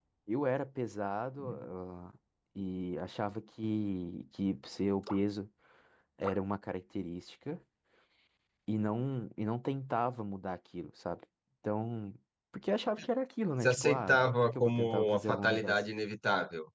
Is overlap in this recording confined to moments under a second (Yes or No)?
No